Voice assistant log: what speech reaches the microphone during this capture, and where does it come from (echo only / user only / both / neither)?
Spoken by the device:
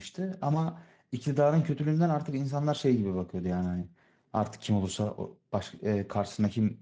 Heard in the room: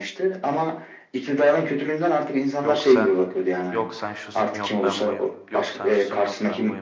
both